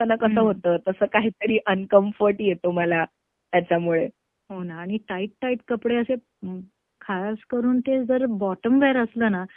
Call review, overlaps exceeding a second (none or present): none